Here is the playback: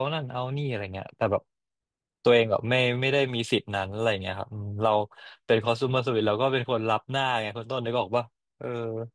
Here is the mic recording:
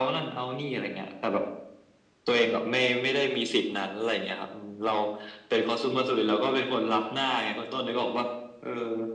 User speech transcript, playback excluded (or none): none